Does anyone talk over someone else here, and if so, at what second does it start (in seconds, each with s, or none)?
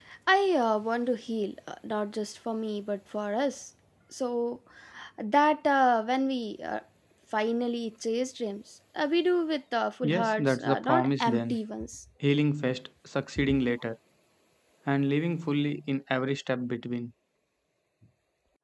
10.0 s